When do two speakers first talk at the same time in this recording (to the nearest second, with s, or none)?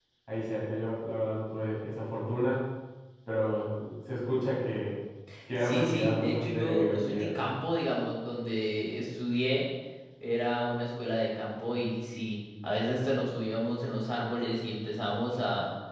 6 s